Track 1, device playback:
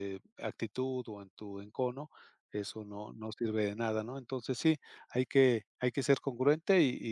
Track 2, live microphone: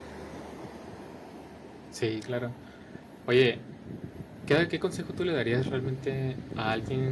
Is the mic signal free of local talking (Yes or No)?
No